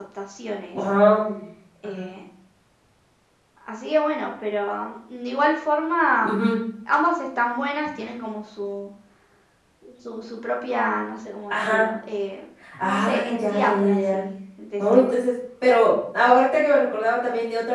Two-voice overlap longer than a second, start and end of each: 12.8-14.2

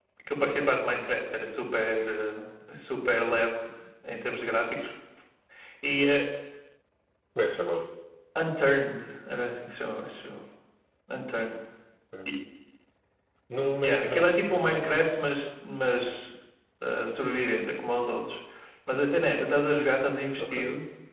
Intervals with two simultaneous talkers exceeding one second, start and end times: 13.8-15.0

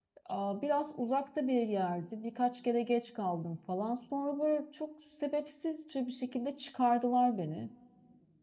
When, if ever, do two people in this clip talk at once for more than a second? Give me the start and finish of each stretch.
none

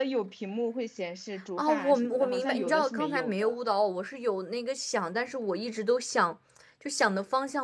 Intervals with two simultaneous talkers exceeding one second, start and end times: 1.6-3.5

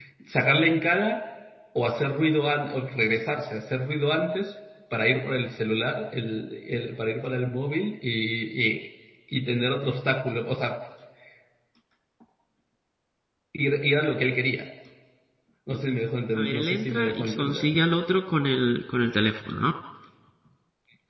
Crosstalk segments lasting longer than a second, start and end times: 16.4-17.7

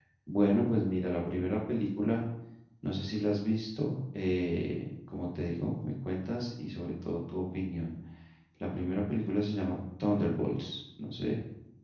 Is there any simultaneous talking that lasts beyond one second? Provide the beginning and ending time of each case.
none

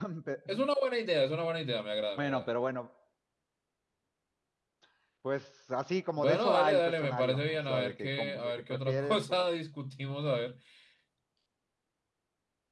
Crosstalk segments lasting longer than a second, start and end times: 6.2-9.2

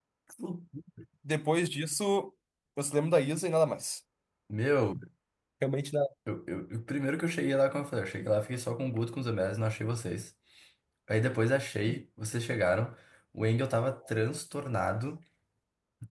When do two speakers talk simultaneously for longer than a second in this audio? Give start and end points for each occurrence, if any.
none

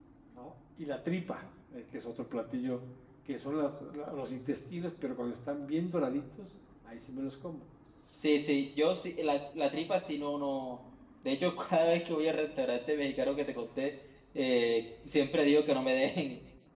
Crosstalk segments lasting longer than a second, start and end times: none

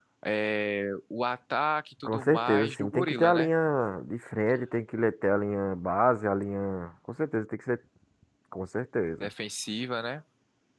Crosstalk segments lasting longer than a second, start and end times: 2.0-3.5

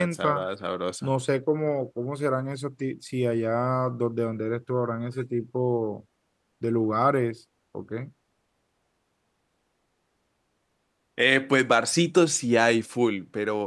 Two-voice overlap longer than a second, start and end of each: none

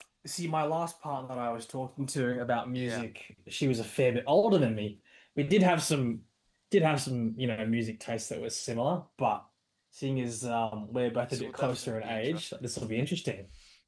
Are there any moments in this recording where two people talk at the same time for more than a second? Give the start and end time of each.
11.2-12.6

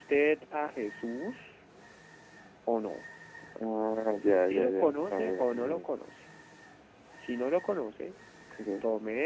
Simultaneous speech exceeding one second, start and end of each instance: 4.3-5.8

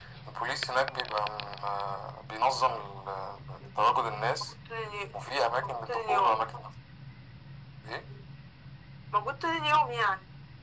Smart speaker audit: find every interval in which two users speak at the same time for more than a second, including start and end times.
5.1-6.3

